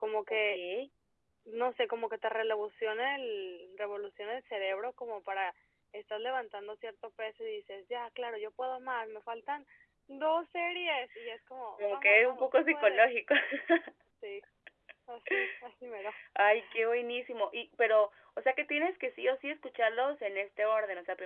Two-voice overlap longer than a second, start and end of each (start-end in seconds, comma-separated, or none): 11.9-13.2